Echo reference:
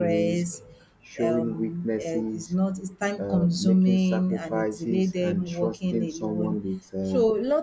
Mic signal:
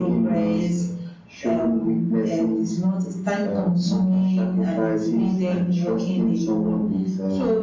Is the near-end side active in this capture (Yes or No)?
No